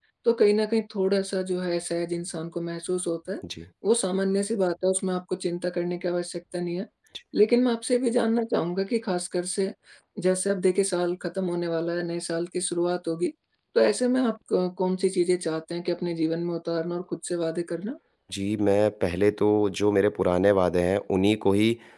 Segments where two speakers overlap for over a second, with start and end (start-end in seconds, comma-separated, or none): none